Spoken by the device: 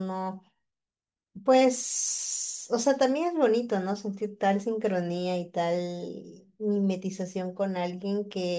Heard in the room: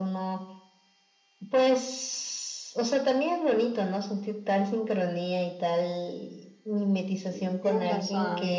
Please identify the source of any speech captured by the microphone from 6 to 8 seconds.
both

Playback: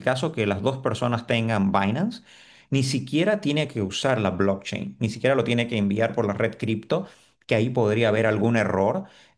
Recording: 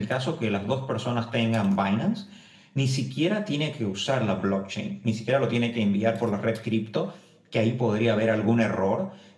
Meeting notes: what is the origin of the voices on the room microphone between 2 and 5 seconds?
echo only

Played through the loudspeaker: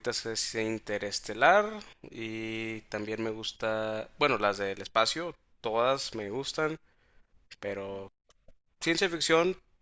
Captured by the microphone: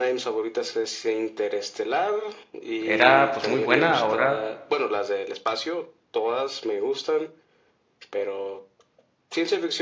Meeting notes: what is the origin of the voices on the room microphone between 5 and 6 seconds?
echo only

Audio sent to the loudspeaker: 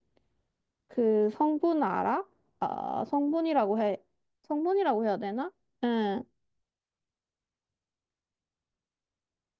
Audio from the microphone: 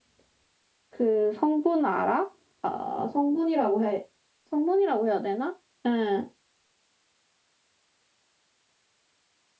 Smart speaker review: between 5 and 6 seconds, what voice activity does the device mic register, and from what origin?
echo only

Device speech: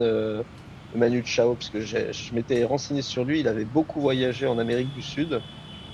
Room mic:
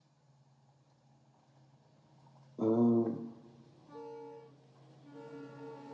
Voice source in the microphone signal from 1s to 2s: neither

